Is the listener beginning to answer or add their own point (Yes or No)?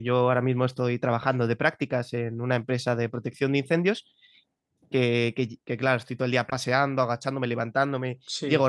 No